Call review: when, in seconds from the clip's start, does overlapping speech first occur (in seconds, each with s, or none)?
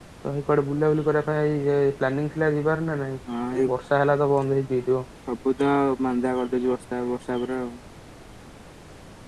none